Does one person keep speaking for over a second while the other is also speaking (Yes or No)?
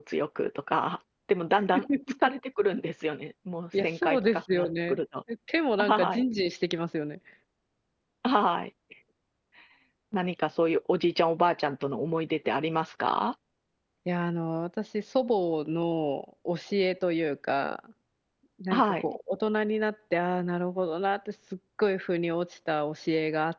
Yes